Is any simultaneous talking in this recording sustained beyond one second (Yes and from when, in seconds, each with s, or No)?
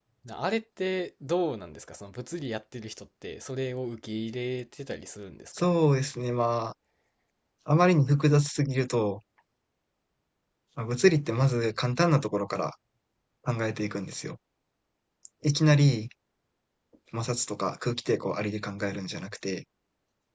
No